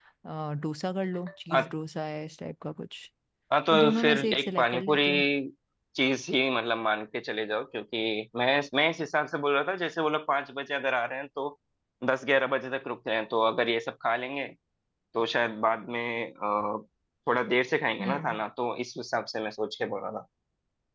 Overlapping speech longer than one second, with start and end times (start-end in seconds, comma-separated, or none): 3.7-5.0